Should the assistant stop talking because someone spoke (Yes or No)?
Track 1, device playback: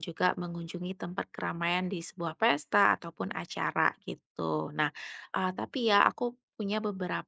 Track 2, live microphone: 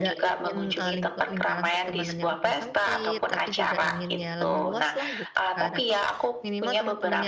Yes